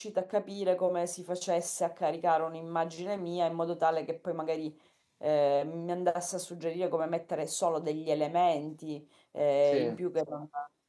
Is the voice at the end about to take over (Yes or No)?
No